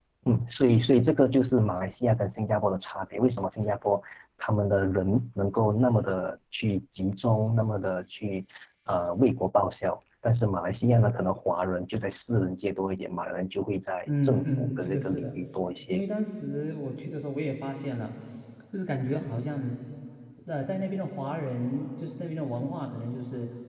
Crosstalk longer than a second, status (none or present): present